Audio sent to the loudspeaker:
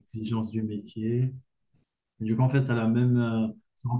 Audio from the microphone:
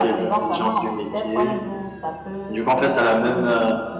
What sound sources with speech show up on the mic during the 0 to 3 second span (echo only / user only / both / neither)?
both